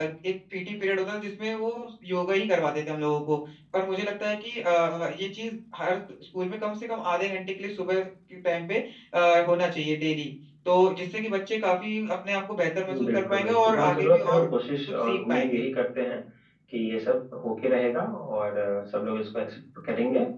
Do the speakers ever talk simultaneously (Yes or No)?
Yes